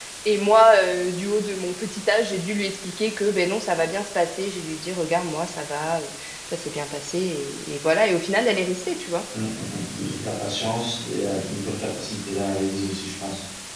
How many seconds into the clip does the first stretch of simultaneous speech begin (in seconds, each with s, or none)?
none